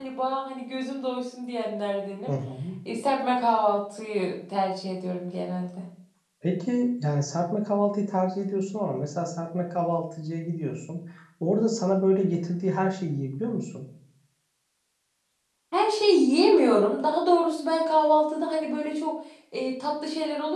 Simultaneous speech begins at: none

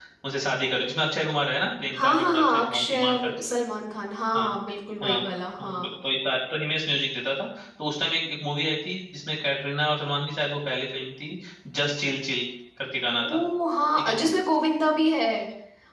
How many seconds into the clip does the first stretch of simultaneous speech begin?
1.9 s

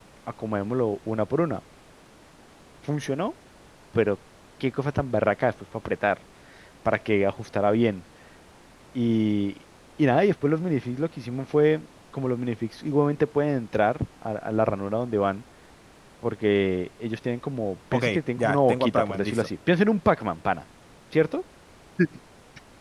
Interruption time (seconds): 17.9 s

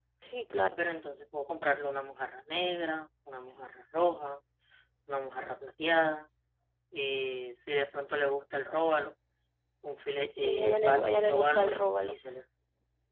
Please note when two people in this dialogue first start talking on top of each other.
10.3 s

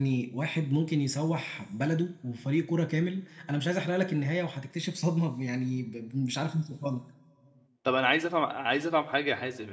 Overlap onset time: none

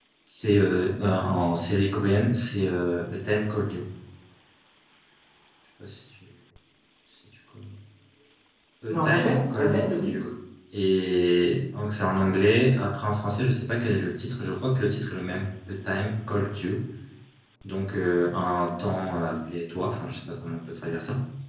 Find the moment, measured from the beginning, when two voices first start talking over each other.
8.9 s

